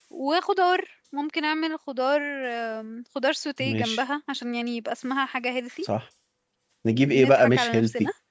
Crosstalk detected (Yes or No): Yes